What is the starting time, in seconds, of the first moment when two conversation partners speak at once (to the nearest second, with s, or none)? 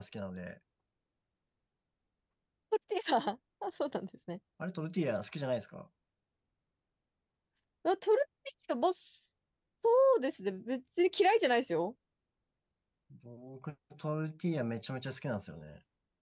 none